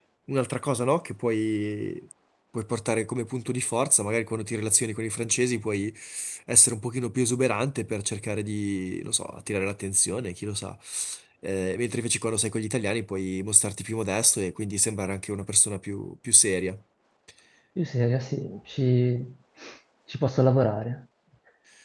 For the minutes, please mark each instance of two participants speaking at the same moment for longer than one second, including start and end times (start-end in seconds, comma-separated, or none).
none